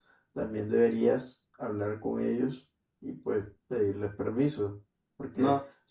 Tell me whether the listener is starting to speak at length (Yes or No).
No